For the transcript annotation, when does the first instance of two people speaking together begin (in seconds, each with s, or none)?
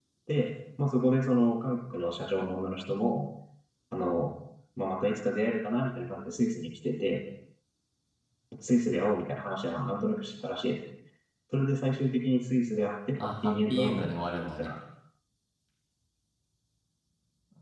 13.2 s